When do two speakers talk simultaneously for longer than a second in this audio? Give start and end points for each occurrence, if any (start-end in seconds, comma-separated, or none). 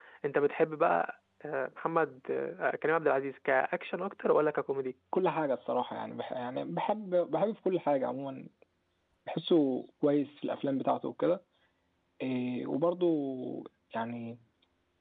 none